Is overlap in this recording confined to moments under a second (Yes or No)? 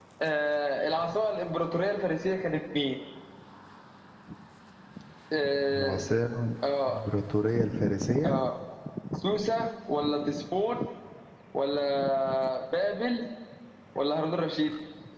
Yes